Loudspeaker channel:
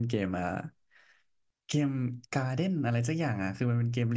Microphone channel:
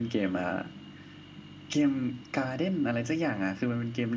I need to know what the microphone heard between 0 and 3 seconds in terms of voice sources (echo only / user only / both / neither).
echo only